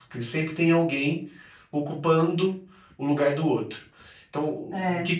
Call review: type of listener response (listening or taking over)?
listening